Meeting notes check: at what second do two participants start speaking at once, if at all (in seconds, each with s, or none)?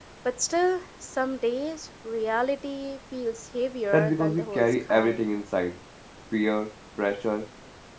3.9 s